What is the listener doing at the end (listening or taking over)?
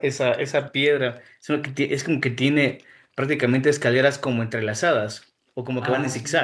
taking over